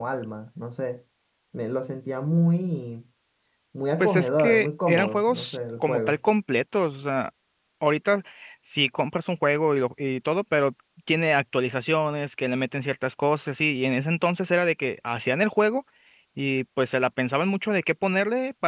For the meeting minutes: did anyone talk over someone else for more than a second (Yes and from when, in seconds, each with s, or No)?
Yes, from 4.0 s